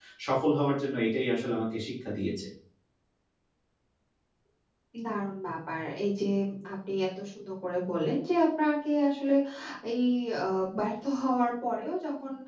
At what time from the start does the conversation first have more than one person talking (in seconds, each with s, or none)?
none